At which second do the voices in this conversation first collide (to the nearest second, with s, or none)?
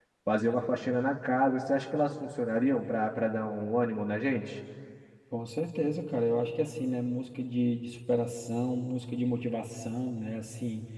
none